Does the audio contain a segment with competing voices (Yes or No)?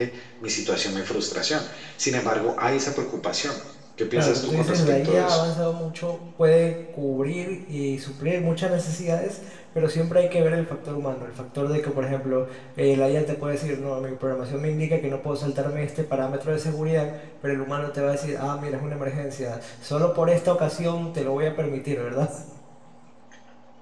Yes